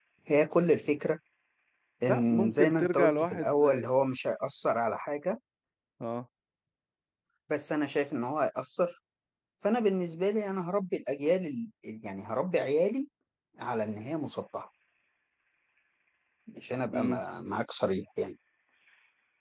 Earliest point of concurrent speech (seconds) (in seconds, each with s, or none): 2.1 s